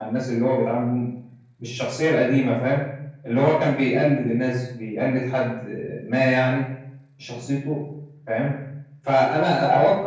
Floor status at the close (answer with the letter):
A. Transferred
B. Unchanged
B